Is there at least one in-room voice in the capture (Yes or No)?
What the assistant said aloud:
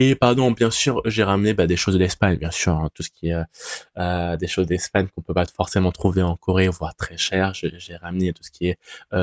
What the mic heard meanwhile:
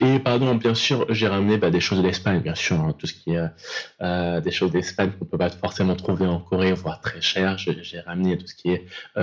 No